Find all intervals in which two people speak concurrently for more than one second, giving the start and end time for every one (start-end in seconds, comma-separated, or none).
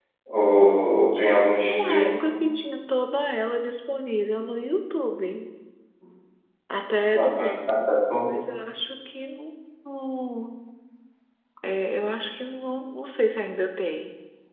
1.1-2.4